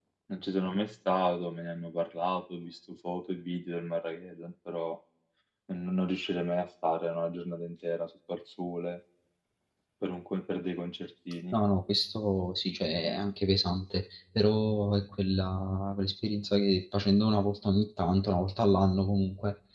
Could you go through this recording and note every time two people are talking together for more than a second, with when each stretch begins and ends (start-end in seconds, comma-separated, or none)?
none